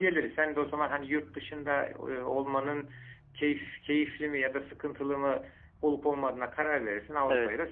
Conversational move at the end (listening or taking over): taking over